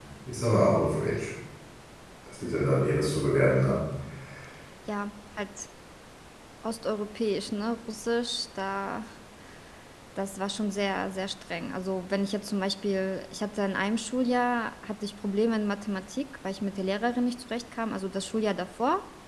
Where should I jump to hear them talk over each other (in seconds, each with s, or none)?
none